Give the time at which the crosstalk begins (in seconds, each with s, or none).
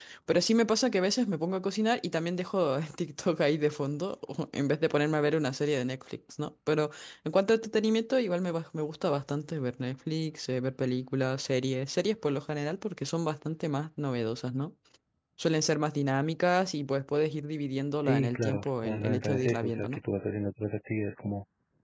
18.0 s